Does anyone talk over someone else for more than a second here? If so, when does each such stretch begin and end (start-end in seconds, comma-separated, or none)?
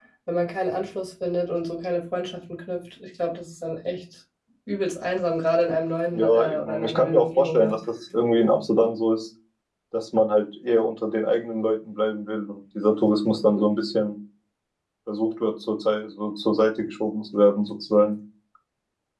6.1-7.8